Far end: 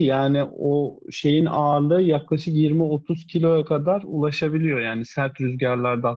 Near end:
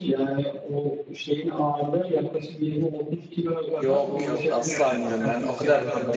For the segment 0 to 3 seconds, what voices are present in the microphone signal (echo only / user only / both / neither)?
echo only